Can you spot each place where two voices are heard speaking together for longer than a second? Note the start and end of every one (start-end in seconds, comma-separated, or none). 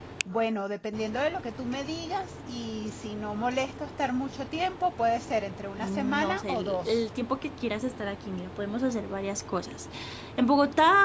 5.8-7.0